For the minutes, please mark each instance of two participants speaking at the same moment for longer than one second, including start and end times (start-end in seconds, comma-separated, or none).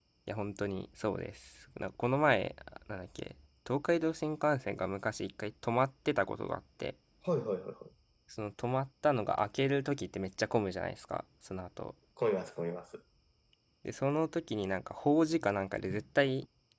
none